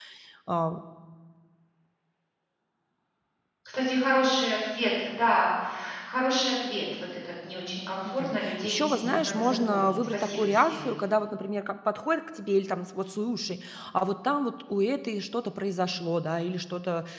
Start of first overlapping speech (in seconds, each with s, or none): 8.1 s